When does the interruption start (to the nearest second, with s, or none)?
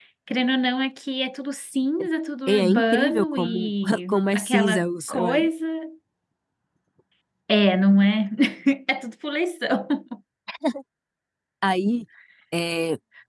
2 s